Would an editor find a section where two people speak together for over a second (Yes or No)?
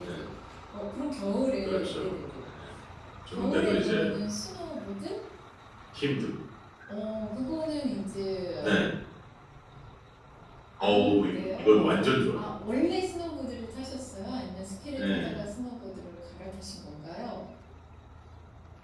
Yes